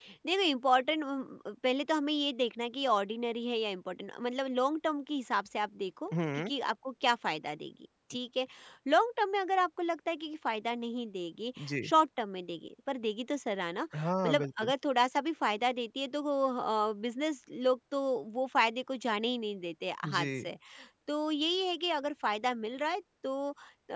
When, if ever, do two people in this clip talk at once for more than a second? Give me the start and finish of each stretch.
none

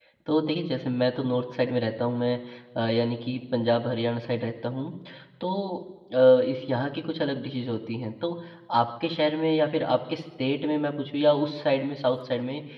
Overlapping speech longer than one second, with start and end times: none

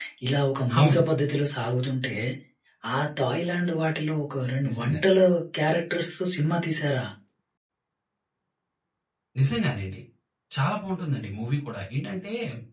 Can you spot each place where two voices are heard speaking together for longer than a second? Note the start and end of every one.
none

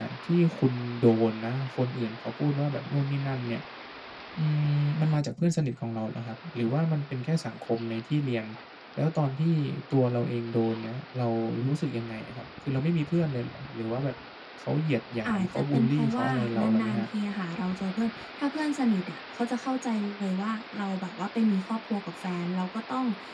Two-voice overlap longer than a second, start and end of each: 15.3-17.0

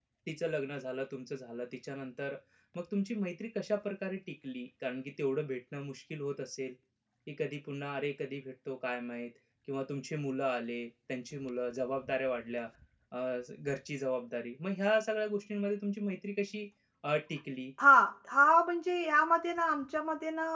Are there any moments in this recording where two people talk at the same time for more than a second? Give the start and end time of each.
none

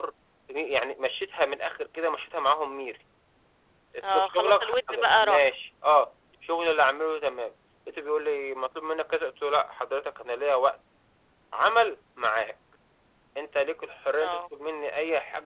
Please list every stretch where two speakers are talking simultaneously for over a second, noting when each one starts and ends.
4.1-5.5

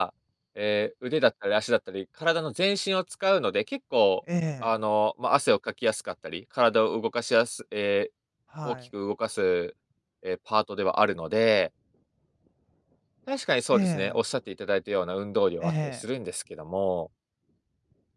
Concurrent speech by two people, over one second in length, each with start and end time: none

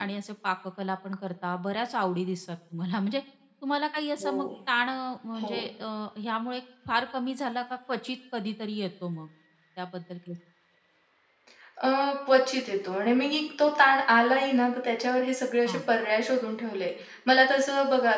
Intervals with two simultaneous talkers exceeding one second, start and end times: none

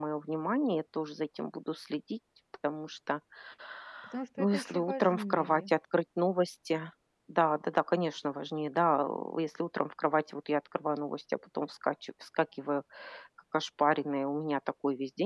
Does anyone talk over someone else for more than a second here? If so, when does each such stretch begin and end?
4.4-5.7

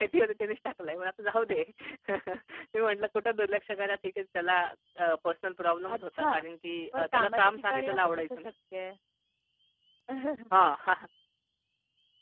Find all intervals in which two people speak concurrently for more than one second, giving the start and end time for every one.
7.0-8.5

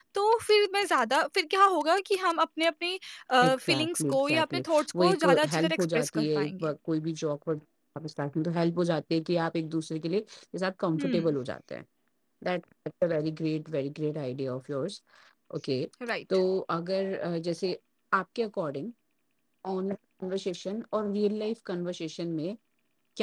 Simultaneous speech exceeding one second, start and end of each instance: 3.4-6.7

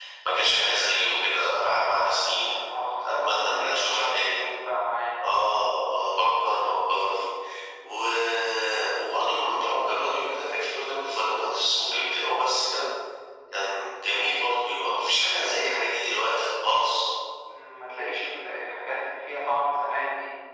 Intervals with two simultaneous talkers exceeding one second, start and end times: 3.1-4.4

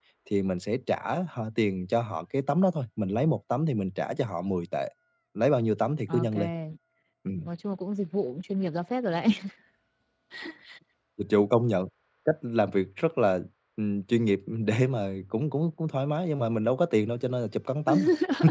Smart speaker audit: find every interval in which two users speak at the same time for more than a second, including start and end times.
none

